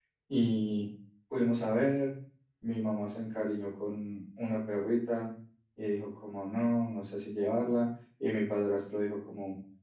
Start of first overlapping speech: none

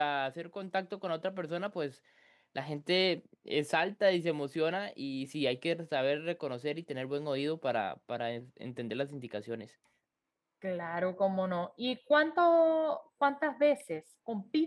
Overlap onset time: none

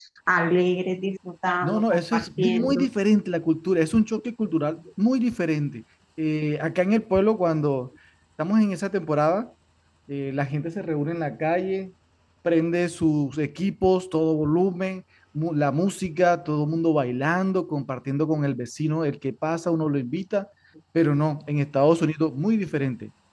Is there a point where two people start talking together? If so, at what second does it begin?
2 s

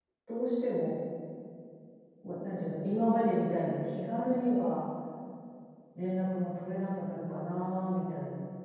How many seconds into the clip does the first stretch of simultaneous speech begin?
none

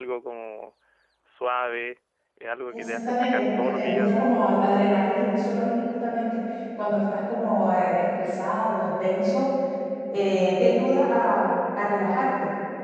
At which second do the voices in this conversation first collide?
3 s

